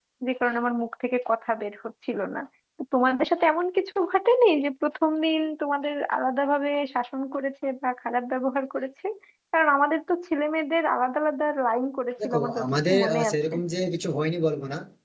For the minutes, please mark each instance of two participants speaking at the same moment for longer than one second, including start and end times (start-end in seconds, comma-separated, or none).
12.2-13.5